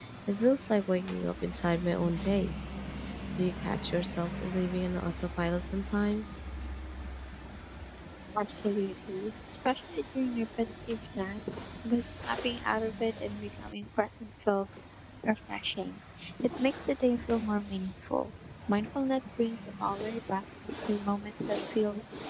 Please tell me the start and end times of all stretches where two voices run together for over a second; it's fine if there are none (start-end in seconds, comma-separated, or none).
none